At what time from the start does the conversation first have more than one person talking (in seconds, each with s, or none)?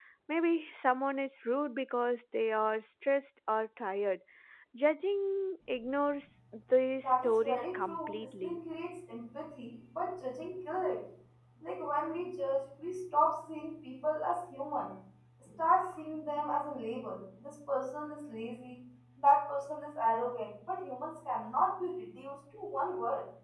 7.0 s